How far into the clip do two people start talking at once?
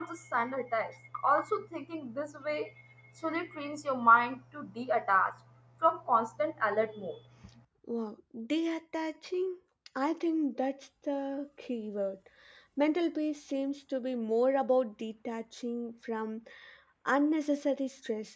none

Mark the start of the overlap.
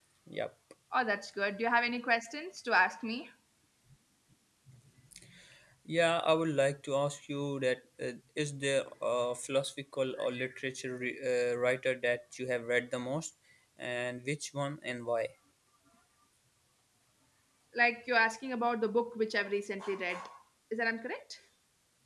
none

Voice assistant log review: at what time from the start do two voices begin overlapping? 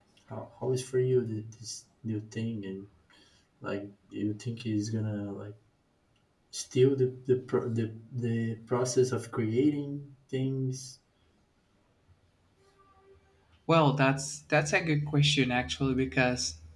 none

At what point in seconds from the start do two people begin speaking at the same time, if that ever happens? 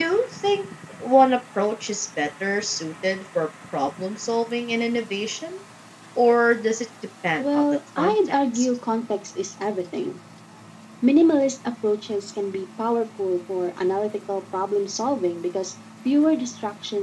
7.4 s

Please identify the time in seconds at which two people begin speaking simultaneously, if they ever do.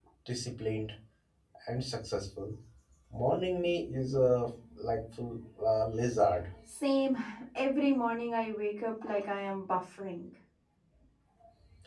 none

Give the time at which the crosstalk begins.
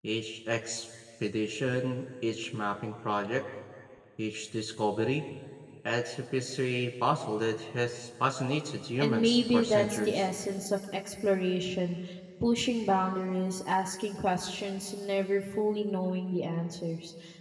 9.0 s

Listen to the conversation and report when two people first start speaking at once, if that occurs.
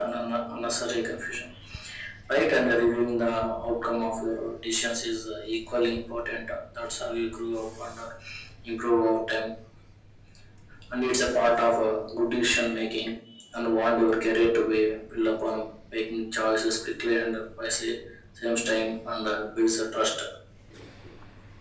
none

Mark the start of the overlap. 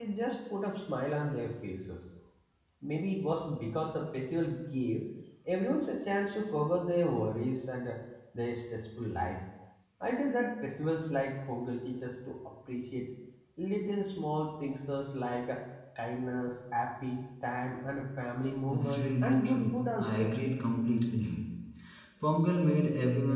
18.7 s

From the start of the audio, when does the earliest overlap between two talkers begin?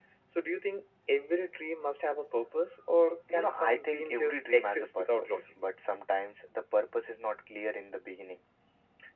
3.3 s

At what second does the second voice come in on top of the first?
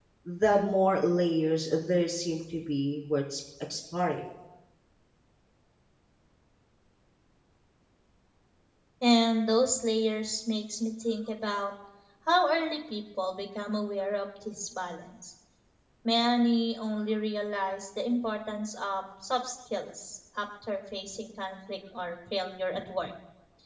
none

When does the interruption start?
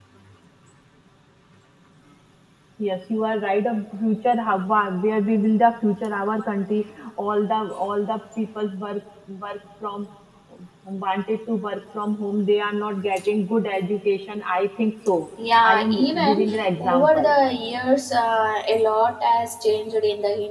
15.6 s

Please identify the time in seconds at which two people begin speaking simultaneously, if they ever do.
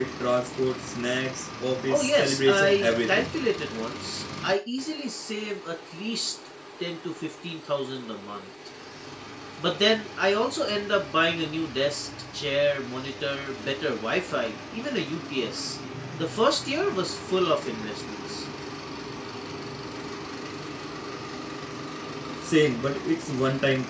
1.9 s

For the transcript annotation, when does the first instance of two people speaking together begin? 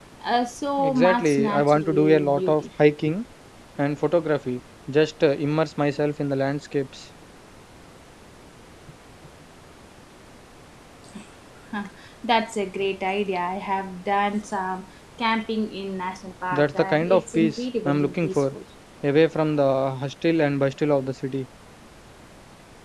0.8 s

